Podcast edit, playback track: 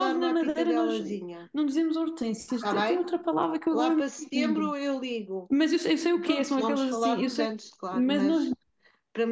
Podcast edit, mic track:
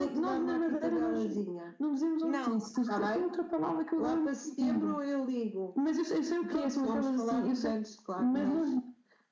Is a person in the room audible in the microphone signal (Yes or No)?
Yes